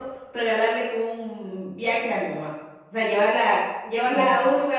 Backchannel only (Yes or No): Yes